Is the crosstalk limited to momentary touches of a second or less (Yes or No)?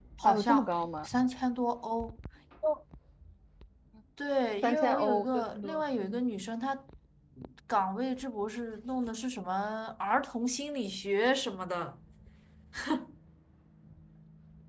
No